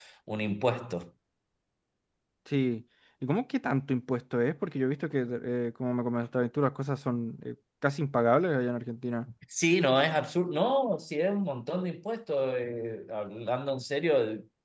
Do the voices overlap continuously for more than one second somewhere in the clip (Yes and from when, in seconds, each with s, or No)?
No